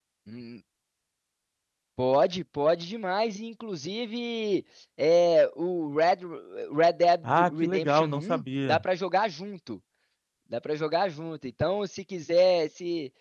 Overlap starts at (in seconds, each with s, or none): 7.2 s